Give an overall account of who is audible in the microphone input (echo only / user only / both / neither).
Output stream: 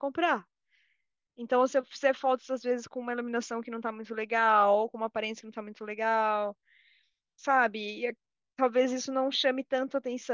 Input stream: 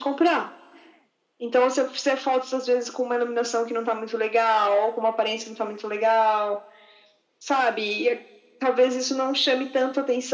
echo only